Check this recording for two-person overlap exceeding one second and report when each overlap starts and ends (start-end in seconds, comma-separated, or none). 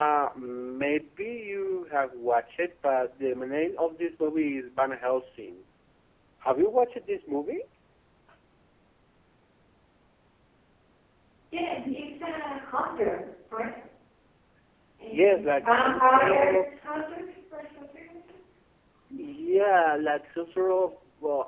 15.1-17.1